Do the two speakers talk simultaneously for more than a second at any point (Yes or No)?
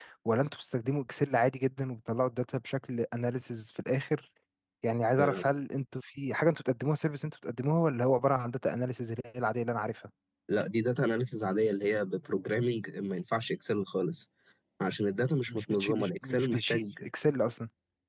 Yes